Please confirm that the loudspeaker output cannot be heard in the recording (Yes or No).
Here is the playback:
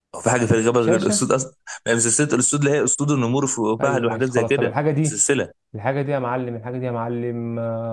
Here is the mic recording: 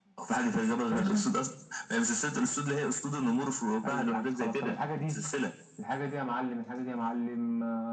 No